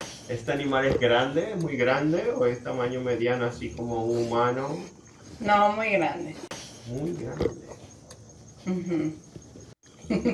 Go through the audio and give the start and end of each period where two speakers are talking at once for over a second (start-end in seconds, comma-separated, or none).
none